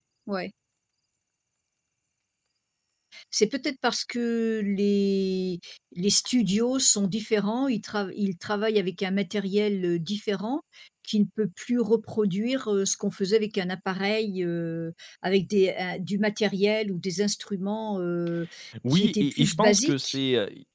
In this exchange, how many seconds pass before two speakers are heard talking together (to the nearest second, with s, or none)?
19 s